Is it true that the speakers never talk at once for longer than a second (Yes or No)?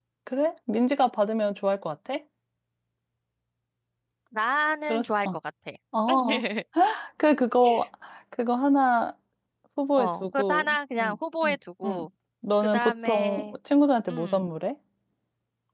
No